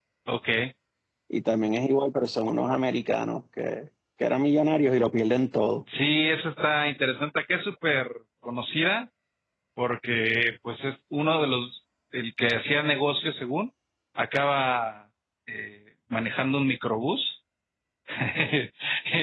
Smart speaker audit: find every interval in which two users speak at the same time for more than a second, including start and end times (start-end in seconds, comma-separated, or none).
none